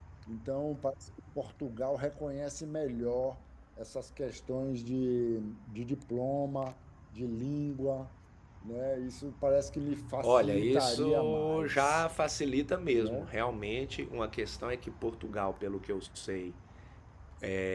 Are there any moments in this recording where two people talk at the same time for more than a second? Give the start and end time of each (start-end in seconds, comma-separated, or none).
10.2-12.0